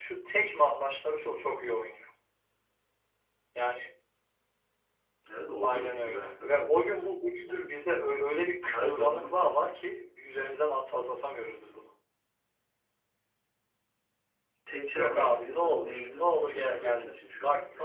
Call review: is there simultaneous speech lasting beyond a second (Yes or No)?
Yes